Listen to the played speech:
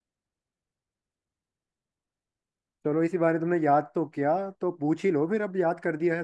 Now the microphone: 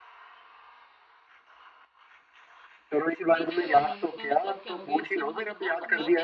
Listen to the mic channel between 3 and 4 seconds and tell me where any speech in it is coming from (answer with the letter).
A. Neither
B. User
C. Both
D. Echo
C